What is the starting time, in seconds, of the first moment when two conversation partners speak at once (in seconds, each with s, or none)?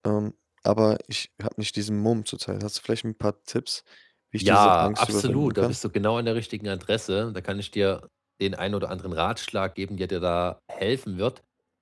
4.4 s